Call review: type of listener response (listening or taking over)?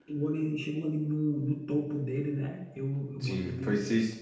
taking over